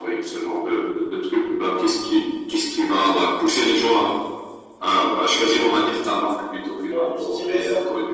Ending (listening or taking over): taking over